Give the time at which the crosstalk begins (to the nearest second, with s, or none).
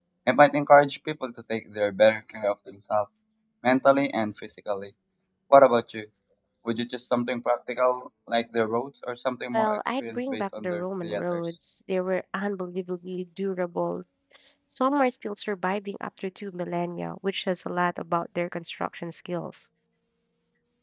10 s